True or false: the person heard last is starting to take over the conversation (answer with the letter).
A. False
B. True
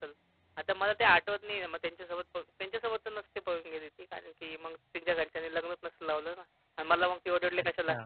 B